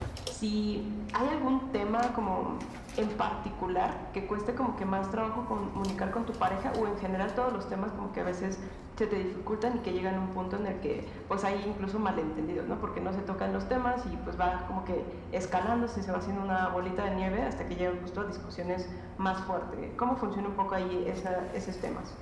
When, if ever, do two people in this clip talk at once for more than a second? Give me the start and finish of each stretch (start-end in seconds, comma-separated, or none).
none